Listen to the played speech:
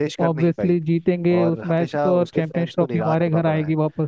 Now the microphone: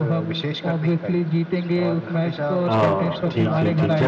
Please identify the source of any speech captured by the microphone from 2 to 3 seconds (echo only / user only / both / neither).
both